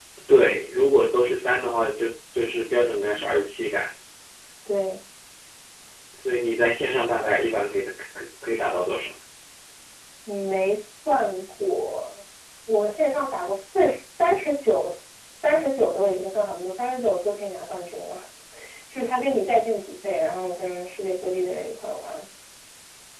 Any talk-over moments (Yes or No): No